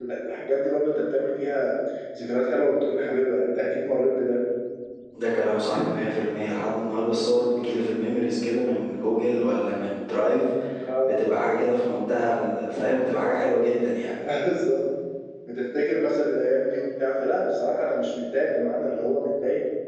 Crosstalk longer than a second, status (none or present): none